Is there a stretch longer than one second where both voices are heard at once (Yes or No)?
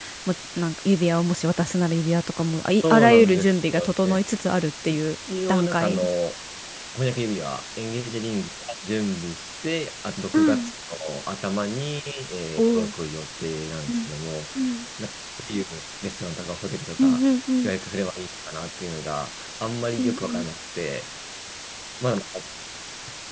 Yes